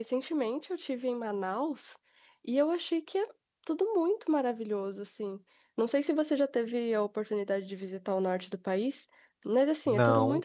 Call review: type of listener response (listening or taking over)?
listening